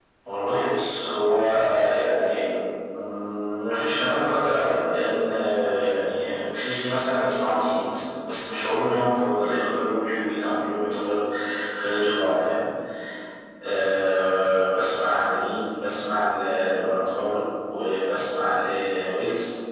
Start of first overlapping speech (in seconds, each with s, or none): none